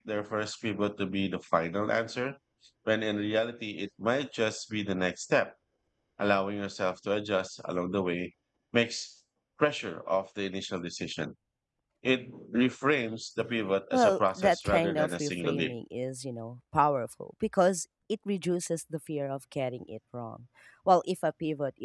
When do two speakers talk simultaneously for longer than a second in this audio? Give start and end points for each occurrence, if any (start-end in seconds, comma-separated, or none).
13.9-15.7